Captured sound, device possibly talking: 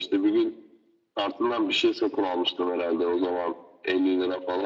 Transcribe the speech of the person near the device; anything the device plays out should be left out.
none

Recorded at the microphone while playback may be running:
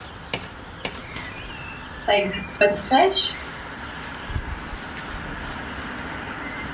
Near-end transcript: avec des tomates fraîches.

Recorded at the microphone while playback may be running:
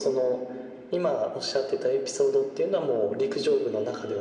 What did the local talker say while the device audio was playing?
none

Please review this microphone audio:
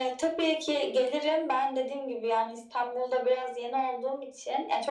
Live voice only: none

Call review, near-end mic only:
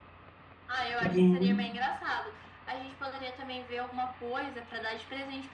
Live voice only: Hum.

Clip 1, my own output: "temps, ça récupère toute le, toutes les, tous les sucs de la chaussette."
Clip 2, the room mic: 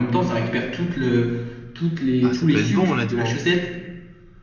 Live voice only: Ah, ça peut être bon, honnêtement.

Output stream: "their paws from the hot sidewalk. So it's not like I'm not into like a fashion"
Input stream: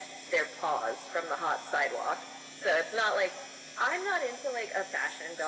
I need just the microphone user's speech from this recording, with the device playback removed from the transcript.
none

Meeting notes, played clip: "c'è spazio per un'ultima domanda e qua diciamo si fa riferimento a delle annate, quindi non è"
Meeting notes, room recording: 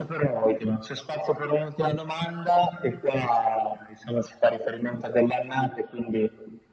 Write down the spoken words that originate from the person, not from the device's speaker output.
none

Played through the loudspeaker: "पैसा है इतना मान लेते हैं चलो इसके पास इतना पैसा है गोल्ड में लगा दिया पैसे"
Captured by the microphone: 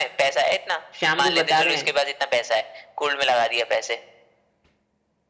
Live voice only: शाम को बता रहे हैं

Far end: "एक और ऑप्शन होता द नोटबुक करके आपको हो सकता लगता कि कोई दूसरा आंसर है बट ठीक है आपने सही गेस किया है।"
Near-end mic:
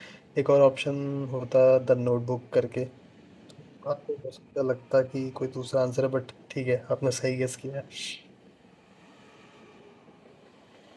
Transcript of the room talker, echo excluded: none

